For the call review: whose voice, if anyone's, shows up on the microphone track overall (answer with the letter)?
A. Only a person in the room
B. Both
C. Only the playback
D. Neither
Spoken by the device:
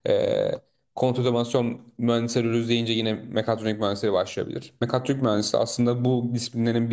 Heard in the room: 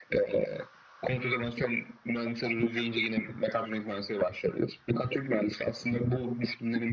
C